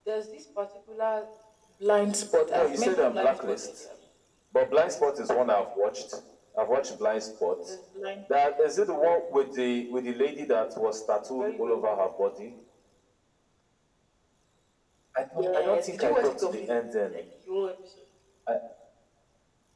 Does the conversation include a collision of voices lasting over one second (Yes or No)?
Yes